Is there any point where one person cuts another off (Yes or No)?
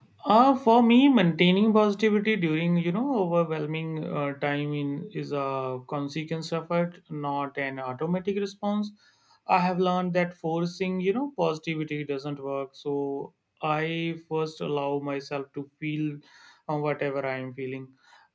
No